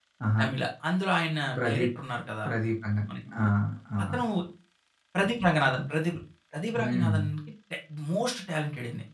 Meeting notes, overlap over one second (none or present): none